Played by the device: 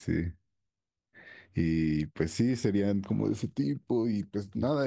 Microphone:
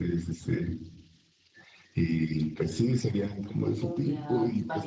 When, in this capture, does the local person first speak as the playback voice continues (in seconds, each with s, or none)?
3.8 s